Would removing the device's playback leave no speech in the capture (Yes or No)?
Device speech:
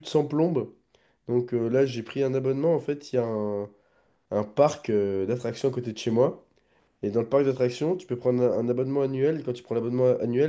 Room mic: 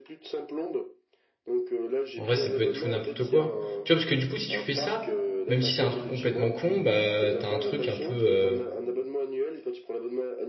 No